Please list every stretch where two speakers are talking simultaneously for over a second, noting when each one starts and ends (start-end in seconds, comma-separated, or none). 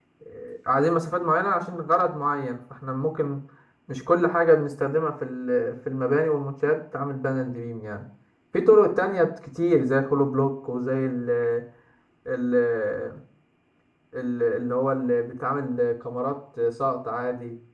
none